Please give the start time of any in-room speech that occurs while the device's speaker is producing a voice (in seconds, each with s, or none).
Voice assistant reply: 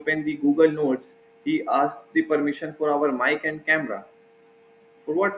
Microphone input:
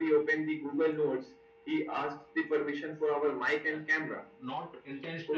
3.7 s